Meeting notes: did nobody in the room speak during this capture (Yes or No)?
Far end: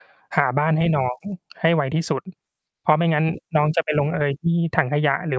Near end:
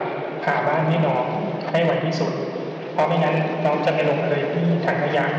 Yes